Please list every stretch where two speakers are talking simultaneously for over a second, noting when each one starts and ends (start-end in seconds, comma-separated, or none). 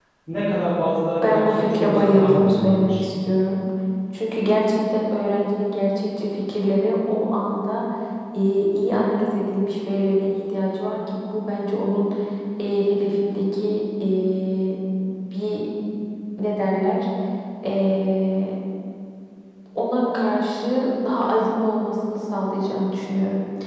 1.2-3.0